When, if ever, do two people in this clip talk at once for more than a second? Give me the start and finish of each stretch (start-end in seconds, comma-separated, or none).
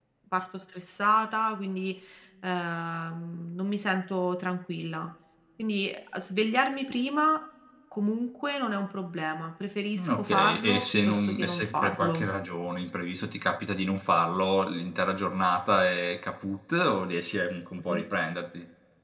9.9-12.2